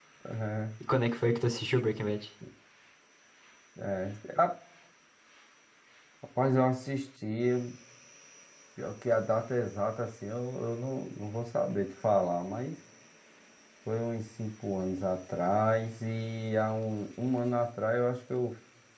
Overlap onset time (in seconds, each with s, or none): none